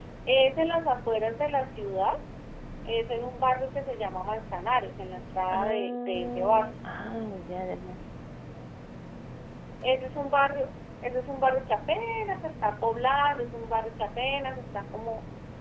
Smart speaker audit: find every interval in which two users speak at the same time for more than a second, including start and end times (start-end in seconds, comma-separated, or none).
5.5-6.7